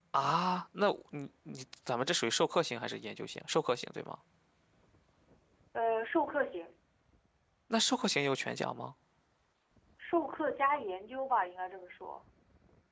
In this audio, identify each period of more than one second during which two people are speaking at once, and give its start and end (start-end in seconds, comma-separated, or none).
none